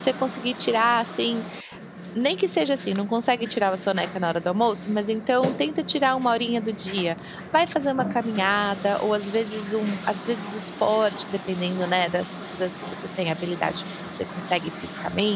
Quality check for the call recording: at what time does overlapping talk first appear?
none

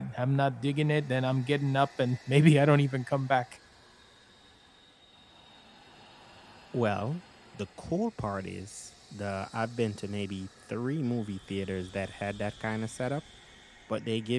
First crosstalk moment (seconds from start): none

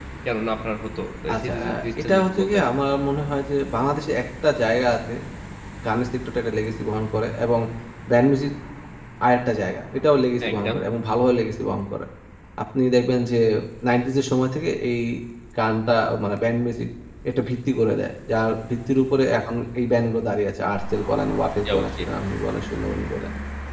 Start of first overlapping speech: 1.3 s

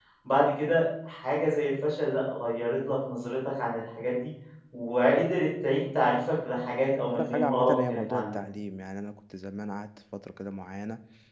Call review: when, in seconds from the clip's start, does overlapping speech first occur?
6.7 s

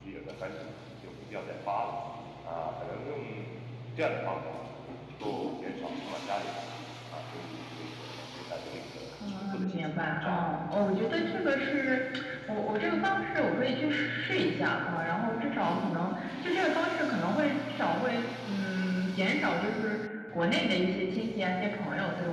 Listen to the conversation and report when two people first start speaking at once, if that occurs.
9.2 s

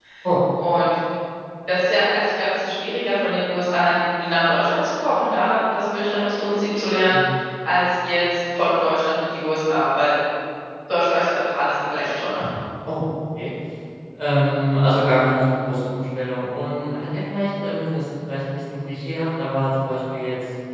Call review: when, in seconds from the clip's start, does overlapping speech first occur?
none

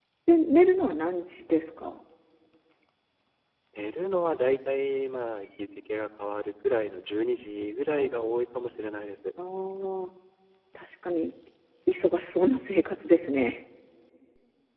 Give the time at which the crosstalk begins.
none

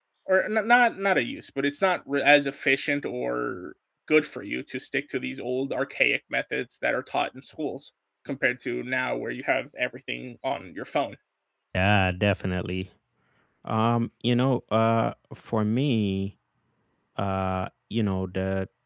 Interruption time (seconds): none

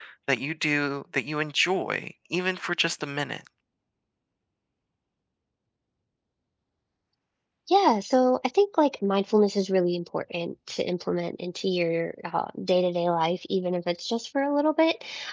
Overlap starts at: none

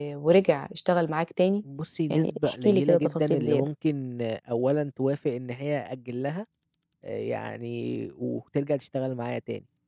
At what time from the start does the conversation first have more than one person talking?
2.1 s

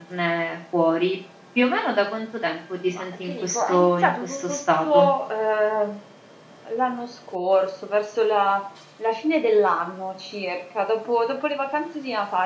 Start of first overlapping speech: 2.9 s

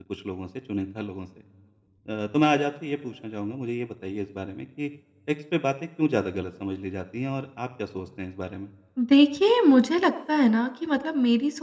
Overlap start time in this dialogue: none

